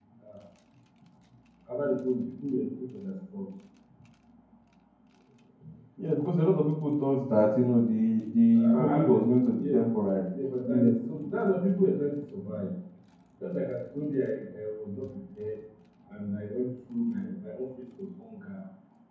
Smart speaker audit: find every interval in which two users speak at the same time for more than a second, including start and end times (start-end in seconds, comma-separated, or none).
8.5-9.8